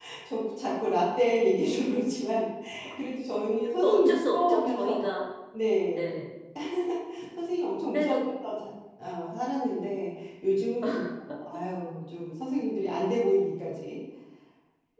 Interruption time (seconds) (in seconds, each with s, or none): 3.8 s